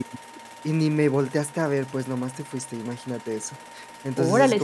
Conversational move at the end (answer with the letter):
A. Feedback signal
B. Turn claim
B